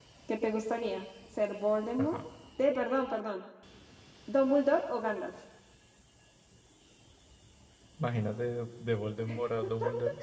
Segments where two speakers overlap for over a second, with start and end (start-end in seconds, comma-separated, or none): none